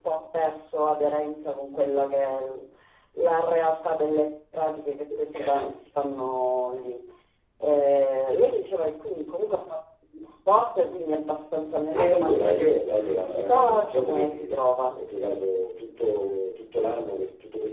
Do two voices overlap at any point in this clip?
Yes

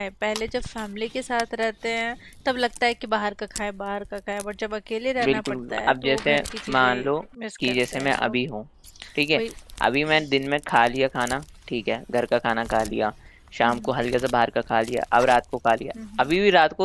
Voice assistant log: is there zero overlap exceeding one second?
No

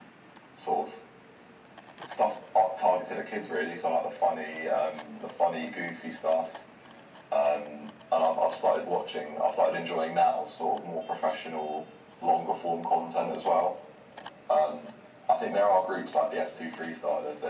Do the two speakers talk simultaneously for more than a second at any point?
No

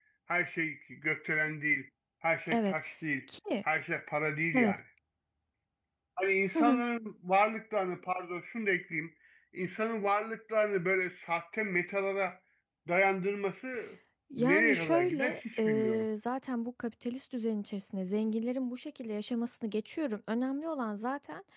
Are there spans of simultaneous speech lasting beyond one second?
Yes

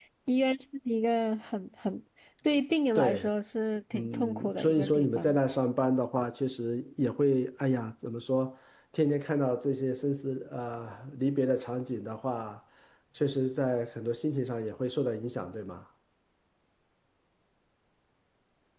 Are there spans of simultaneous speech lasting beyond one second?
Yes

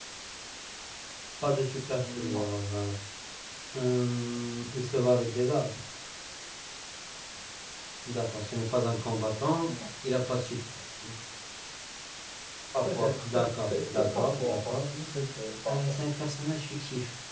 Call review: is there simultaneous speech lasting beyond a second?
Yes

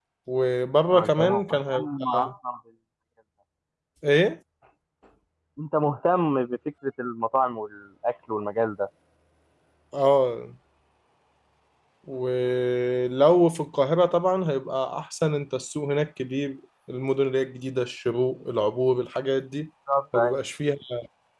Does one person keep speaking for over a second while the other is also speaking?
Yes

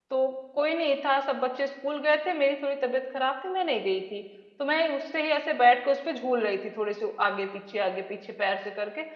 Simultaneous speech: No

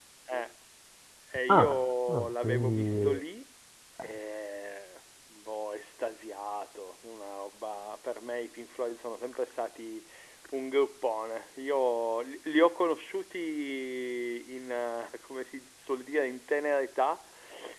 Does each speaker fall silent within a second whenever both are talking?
No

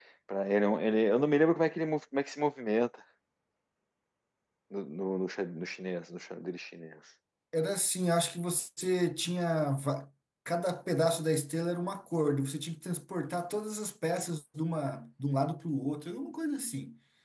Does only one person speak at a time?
Yes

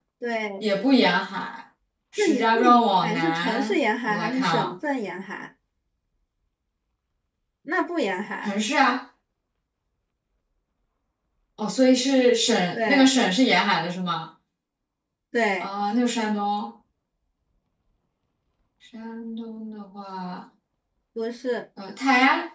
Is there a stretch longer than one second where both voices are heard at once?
Yes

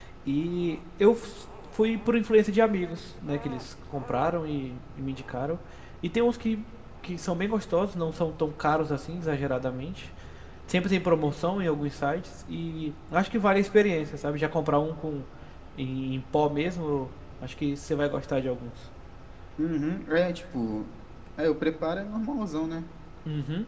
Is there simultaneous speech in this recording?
No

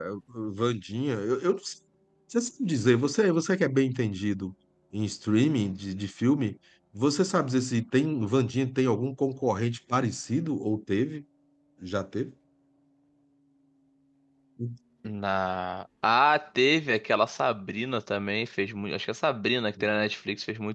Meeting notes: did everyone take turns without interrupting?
Yes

